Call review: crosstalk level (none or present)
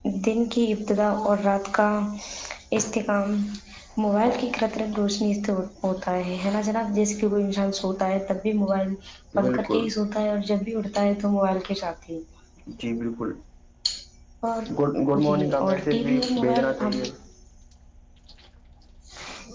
present